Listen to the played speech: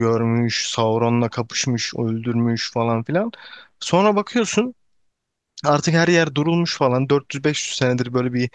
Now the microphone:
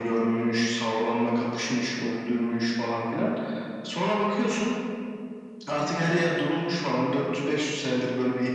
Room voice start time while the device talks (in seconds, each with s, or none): none